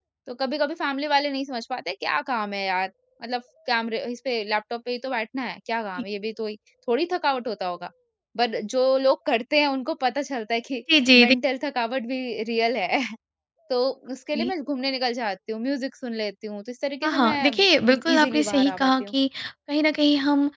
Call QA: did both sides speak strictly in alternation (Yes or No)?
No